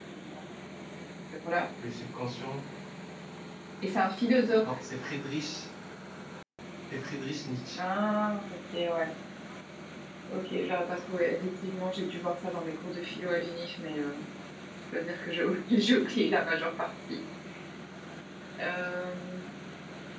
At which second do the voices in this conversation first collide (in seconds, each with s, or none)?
none